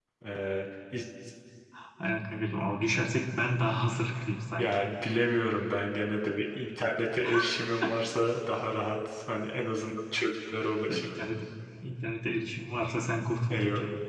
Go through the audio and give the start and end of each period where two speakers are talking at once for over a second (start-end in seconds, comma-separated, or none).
none